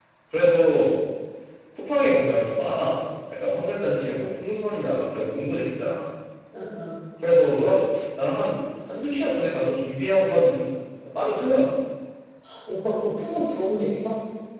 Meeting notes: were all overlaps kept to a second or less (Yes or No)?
Yes